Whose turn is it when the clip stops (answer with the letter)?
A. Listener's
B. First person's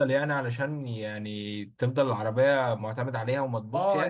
A